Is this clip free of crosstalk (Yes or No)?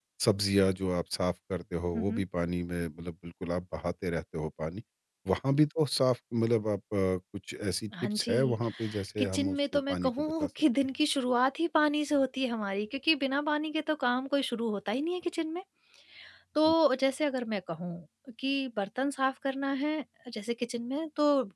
No